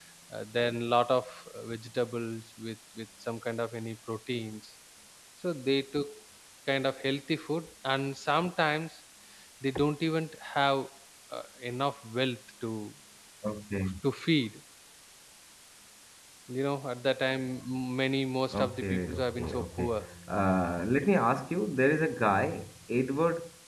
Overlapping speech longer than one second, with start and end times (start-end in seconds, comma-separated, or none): 18.6-19.9